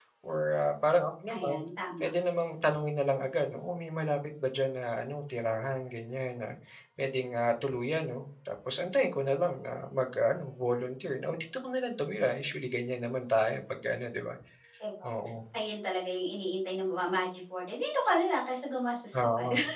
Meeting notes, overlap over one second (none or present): none